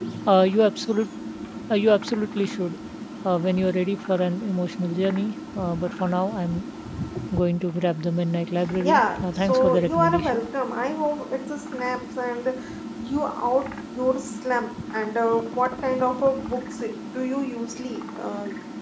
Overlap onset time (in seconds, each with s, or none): 8.8 s